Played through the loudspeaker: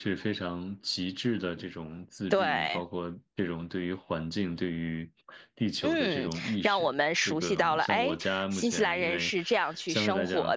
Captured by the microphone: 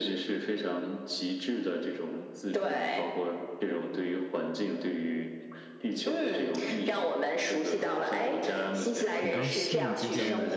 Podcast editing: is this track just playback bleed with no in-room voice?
No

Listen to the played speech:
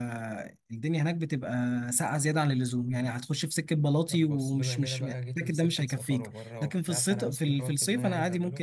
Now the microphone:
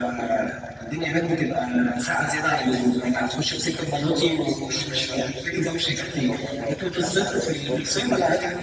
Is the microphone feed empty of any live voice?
Yes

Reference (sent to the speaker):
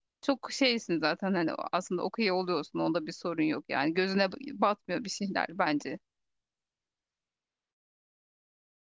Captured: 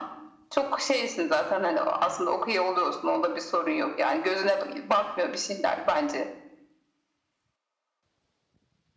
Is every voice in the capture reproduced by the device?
Yes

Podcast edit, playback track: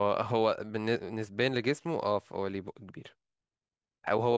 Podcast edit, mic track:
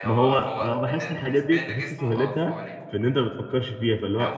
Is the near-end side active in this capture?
Yes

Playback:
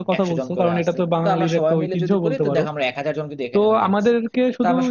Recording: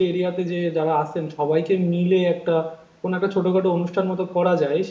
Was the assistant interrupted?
Yes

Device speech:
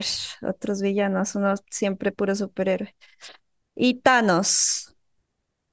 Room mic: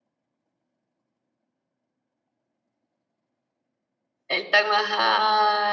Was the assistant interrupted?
Yes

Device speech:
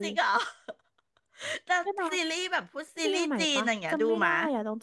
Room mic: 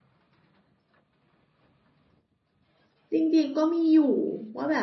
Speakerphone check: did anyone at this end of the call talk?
Yes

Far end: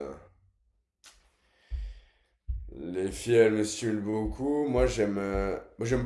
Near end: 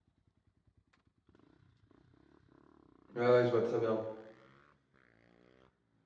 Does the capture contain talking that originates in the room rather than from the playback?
Yes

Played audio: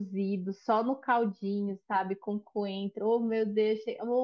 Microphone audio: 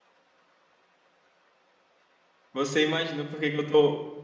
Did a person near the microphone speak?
Yes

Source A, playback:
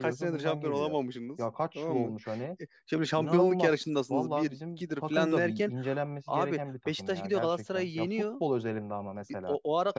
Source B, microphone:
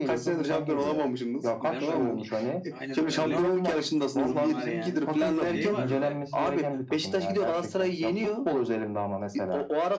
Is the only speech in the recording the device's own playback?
No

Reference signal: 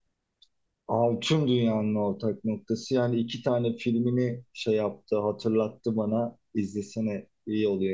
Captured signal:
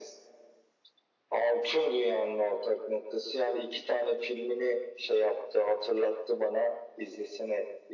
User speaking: No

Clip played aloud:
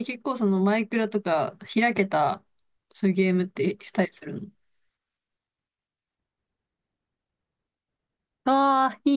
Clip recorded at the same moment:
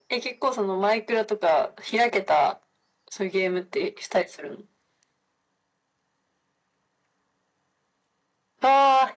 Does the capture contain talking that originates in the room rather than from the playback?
No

